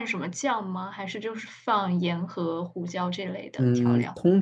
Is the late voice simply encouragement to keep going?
No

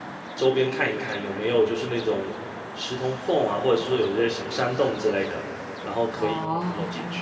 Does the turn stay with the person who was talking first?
Yes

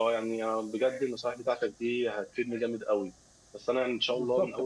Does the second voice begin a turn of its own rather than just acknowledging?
No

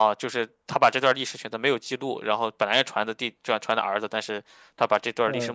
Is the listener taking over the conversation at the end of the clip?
Yes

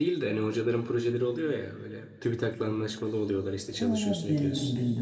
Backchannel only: No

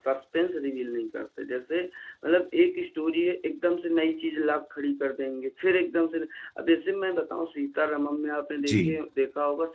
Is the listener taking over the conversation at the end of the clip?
No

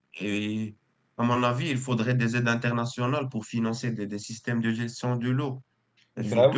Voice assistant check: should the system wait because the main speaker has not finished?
Yes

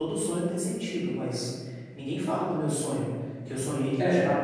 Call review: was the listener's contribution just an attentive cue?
Yes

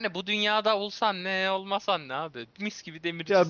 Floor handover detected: Yes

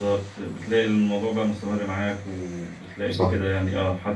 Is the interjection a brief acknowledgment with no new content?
Yes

